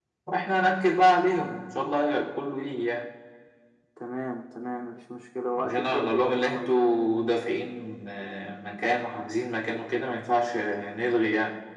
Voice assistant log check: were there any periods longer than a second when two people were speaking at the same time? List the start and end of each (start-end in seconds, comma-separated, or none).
5.6-7.0